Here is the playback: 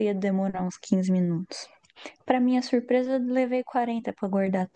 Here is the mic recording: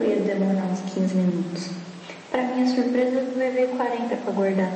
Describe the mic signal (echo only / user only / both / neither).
echo only